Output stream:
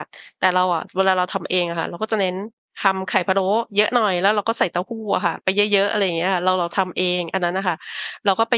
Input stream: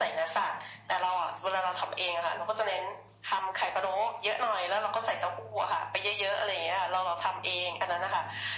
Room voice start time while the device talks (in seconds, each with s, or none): none